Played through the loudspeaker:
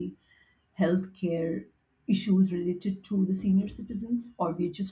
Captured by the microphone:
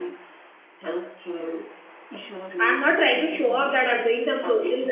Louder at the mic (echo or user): user